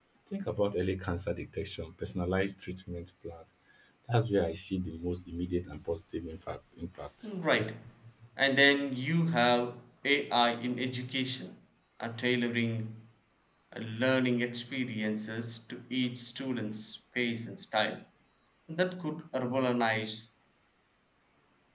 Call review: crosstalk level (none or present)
none